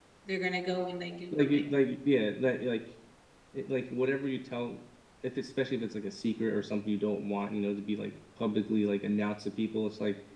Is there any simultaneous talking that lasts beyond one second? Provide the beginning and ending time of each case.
none

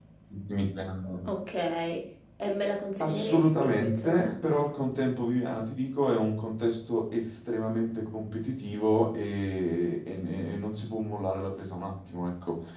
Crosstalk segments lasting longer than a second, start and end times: 3.0-4.4

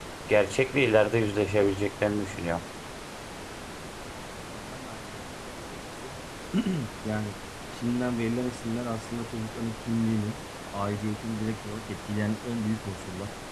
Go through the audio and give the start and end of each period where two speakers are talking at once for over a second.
none

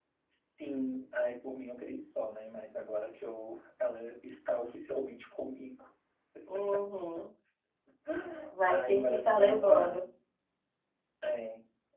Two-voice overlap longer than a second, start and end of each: 8.7-10.0

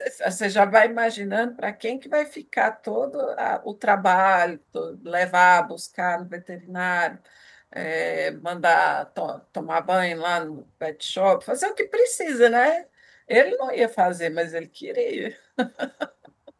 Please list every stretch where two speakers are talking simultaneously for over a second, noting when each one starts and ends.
none

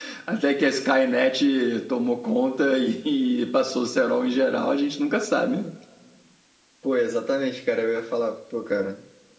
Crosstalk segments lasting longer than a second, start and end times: none

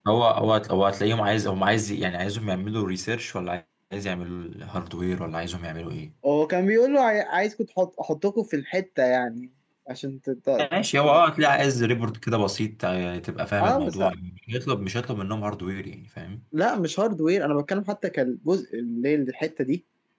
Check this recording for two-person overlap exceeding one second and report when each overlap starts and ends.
none

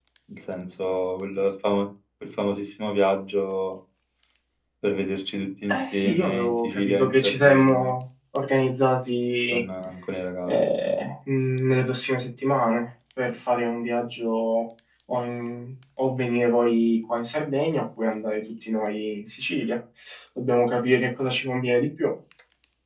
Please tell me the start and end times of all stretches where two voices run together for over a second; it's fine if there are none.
5.7-7.9

